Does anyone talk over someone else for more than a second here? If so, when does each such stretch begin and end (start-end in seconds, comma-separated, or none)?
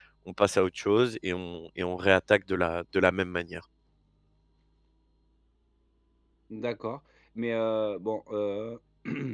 none